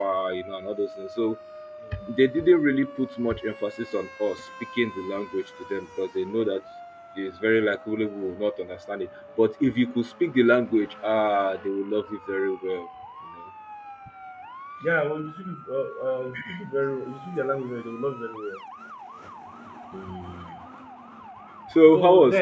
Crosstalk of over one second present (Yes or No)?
No